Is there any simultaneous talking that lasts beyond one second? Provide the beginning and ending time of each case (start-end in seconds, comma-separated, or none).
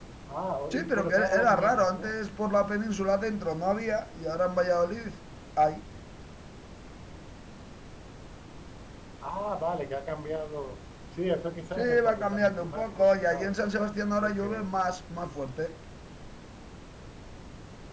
0.7-2.1, 11.8-13.5